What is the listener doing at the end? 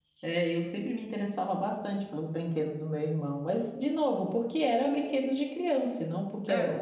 listening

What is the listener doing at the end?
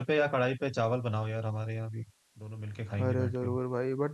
taking over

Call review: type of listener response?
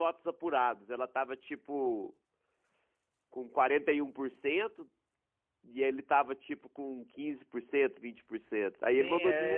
taking over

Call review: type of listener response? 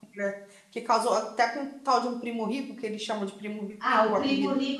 taking over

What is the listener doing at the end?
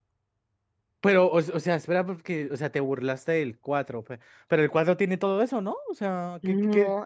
taking over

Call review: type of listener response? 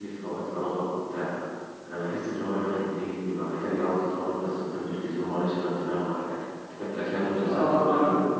taking over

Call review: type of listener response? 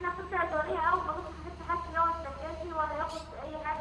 listening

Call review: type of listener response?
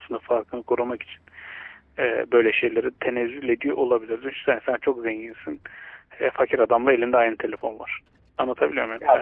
taking over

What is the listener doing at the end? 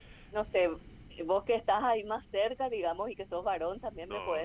listening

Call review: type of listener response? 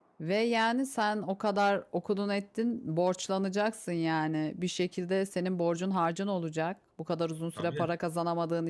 listening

